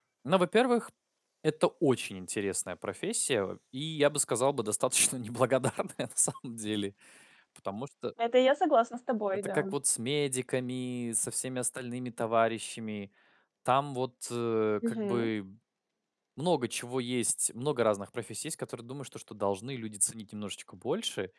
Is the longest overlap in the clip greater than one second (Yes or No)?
No